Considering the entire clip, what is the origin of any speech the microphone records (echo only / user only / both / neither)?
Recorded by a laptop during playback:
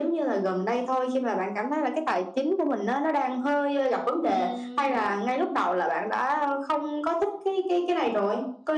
both